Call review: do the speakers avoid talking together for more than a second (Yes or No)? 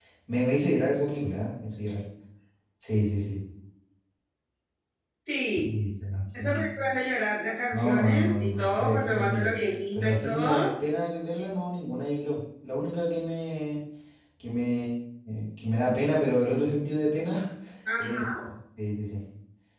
No